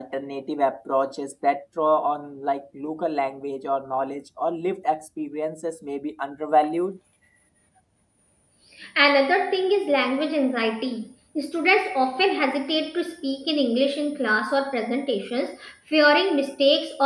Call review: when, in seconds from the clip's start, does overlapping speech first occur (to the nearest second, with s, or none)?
none